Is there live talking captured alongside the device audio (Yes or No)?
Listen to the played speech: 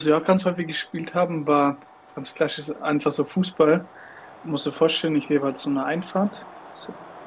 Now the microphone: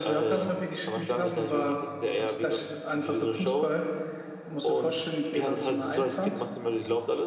Yes